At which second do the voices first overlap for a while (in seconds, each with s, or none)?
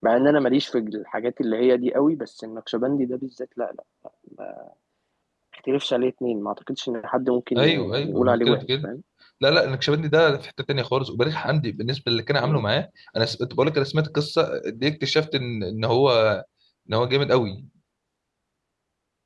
7.5 s